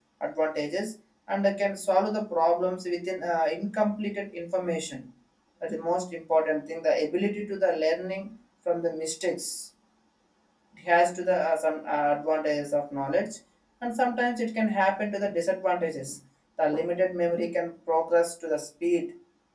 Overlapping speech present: No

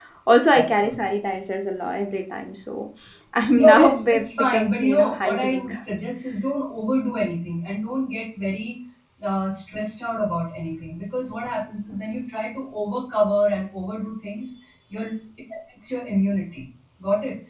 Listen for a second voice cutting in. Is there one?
Yes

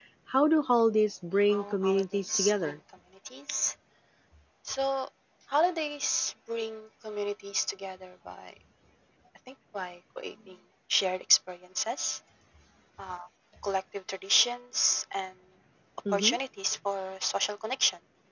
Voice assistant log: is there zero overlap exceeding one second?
No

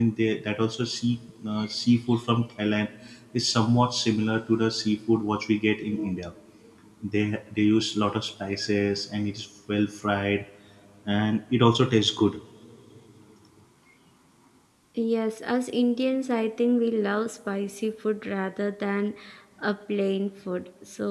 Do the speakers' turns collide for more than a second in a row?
No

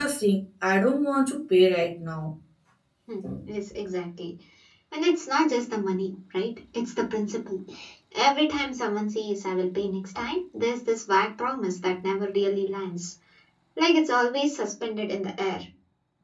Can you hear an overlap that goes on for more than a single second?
No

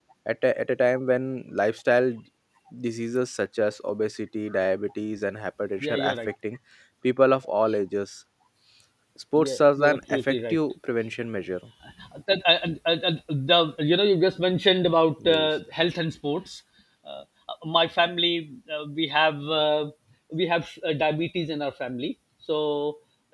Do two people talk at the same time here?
Yes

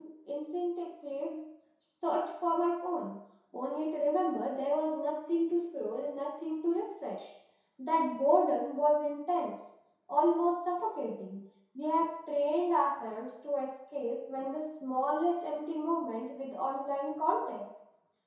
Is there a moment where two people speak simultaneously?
No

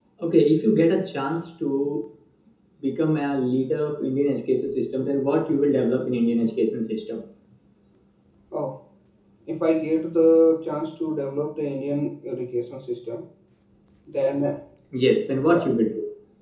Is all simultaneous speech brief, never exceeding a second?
Yes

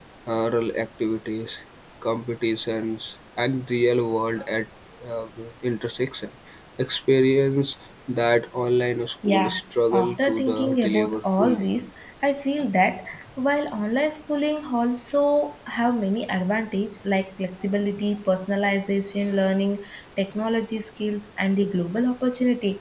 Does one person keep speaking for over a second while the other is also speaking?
Yes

